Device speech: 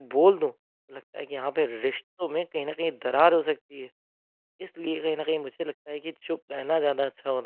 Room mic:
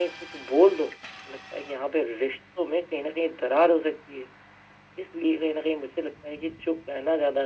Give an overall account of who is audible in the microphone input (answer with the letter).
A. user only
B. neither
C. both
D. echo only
D